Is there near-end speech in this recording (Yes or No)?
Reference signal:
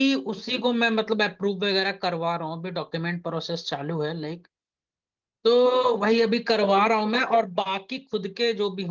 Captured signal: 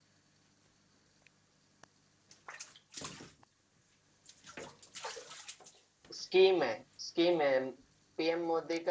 Yes